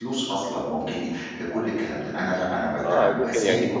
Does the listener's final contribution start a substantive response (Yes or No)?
Yes